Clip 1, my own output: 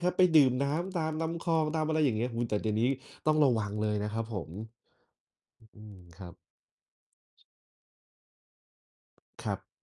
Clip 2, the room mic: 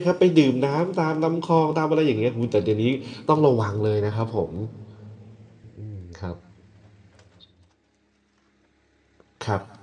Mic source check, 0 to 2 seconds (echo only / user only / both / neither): echo only